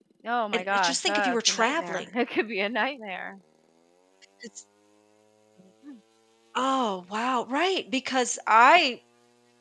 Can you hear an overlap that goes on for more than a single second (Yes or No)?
Yes